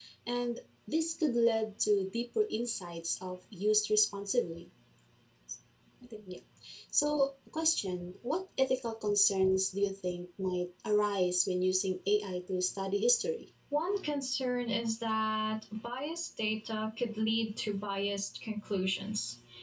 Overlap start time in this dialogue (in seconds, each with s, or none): none